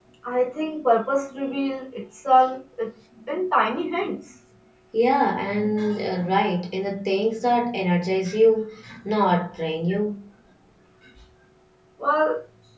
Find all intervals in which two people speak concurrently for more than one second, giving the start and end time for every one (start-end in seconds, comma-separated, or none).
none